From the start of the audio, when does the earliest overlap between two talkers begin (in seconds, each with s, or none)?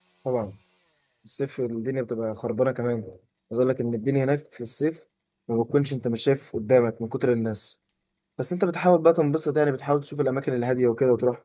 none